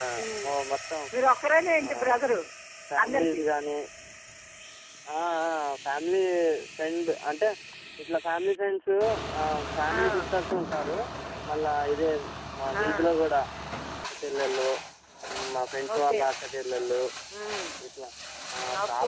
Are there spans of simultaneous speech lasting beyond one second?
No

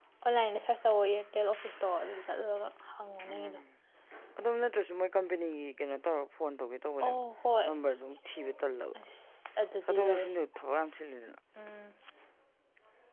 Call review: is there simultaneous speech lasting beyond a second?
No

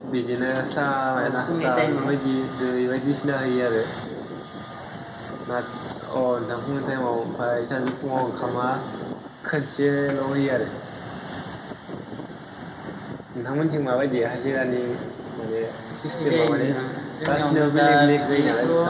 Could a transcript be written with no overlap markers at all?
No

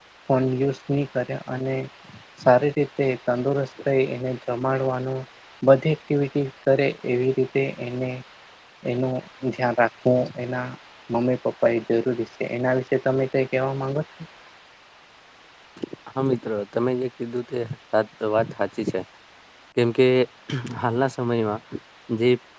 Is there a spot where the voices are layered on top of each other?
No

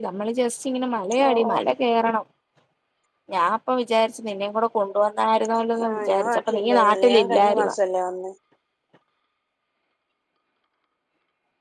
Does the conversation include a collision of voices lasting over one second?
Yes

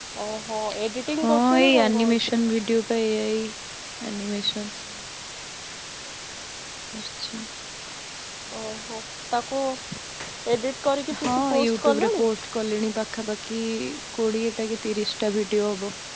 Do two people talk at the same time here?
Yes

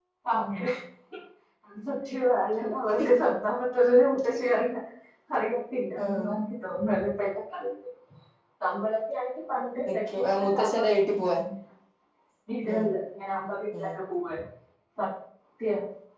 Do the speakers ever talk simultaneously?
Yes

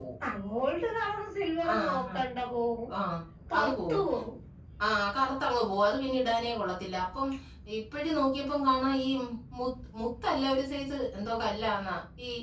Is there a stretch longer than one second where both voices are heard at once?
No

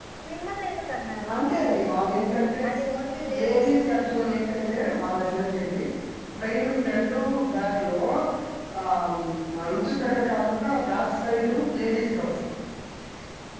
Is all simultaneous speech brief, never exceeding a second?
Yes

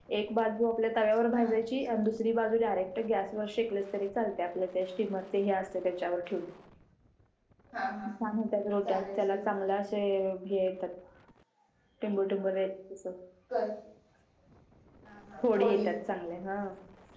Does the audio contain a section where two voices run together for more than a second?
No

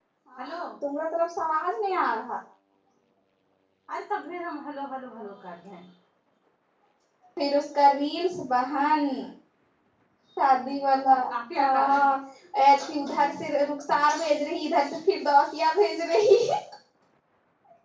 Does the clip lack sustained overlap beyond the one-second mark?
Yes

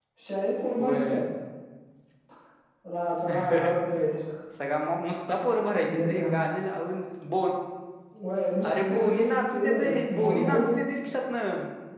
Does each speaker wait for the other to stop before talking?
No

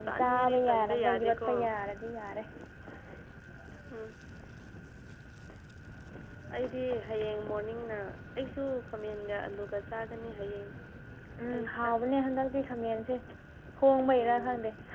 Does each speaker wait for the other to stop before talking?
No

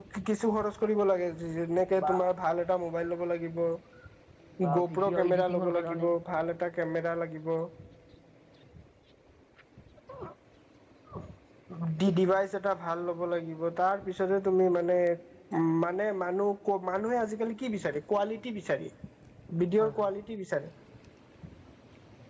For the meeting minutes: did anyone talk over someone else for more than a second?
Yes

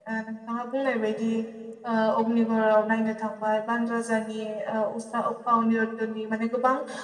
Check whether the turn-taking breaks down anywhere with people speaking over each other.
No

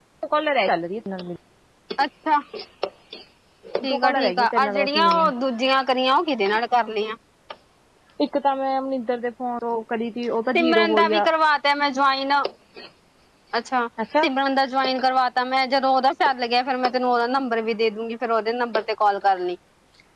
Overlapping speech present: Yes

